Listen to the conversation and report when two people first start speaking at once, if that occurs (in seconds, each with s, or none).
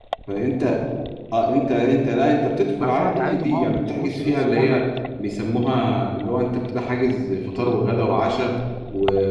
2.8 s